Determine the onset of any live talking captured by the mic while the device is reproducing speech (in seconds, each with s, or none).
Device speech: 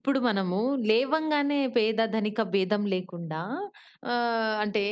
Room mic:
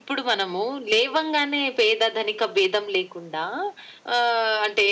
none